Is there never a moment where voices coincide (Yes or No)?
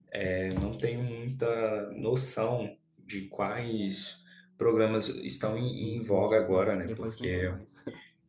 No